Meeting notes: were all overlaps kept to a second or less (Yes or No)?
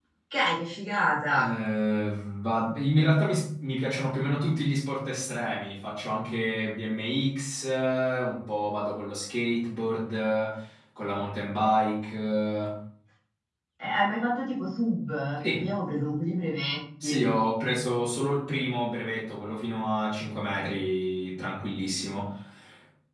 Yes